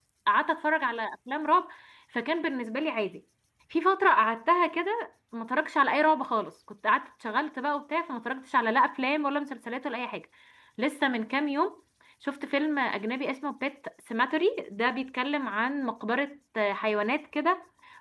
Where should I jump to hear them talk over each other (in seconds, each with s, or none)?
none